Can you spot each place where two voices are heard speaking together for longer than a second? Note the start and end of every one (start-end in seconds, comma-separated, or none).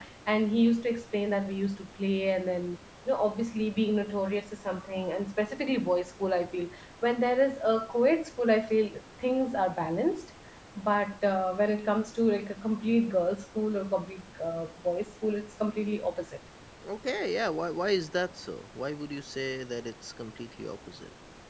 none